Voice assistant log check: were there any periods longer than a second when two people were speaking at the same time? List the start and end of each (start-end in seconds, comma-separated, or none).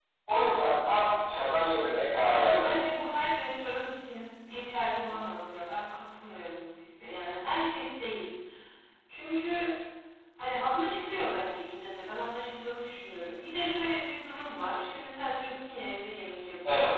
none